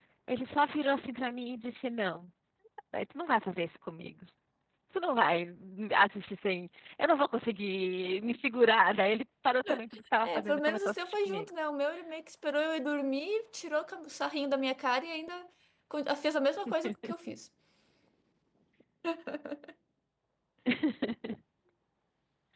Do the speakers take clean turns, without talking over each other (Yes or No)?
No